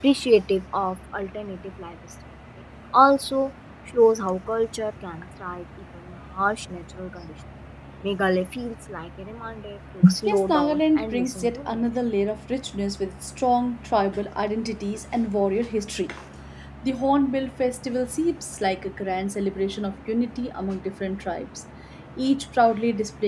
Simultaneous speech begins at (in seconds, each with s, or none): 10.3 s